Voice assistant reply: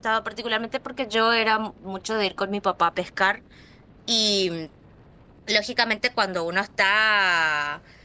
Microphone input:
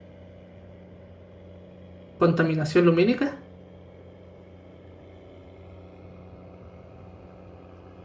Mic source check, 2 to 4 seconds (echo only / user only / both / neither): user only